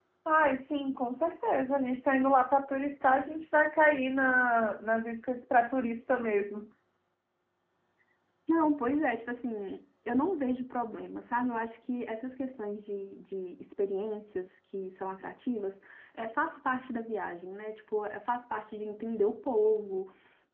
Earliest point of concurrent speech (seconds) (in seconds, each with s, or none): none